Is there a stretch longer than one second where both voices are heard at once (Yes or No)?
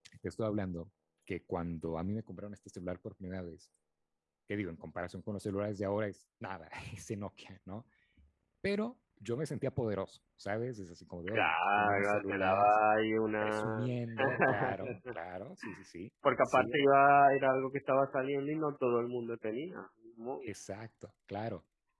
Yes